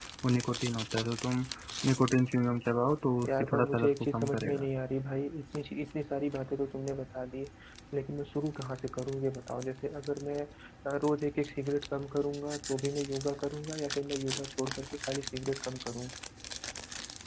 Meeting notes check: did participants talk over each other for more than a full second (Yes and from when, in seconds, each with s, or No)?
Yes, from 3.2 s